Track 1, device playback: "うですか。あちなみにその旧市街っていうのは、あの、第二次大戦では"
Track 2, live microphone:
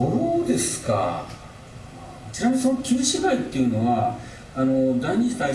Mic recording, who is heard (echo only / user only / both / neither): echo only